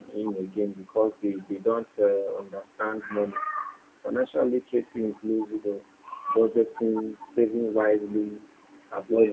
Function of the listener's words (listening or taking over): listening